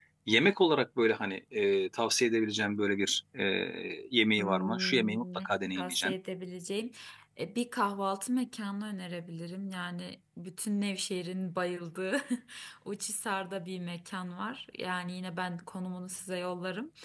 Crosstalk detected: Yes, from 4.4 s

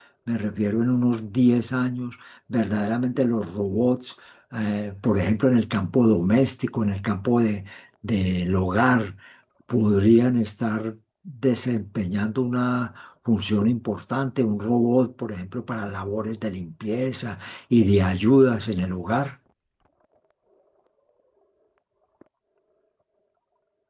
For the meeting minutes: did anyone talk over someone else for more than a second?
No

